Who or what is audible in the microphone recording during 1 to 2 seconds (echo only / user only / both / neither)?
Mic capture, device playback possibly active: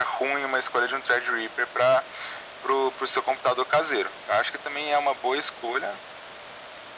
echo only